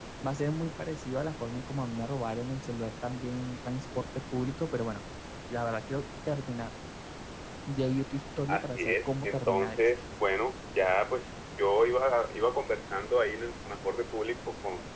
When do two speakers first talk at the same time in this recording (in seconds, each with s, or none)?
8.5 s